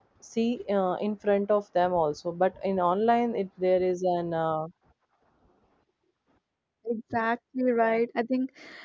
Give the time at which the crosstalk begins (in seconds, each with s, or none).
none